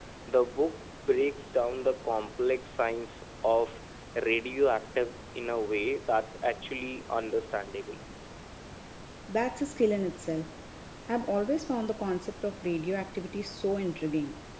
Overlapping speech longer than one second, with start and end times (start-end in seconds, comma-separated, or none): none